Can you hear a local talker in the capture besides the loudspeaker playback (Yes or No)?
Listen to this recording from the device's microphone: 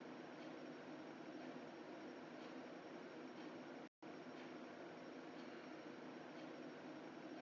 No